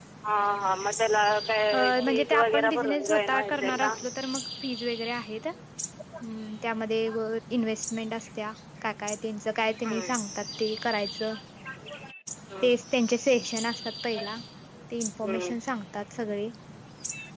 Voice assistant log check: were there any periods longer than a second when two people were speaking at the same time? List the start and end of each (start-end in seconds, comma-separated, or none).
1.7-3.9